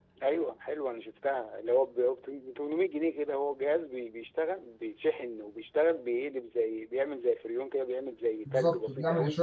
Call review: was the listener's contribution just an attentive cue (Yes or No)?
No